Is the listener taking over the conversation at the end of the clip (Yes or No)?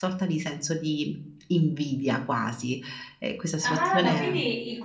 Yes